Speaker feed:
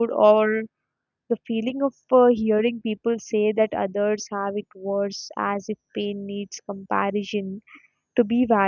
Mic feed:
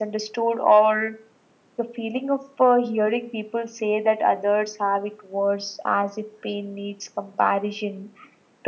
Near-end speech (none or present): none